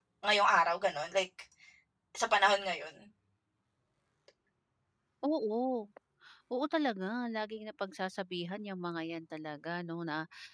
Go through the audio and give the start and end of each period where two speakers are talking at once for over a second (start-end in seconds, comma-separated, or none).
none